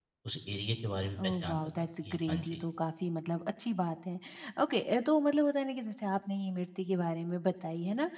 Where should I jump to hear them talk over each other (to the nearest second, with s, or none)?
1 s